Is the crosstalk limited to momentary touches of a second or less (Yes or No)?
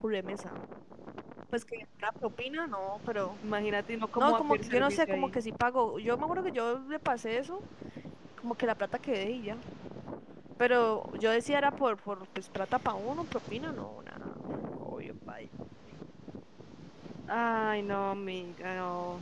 No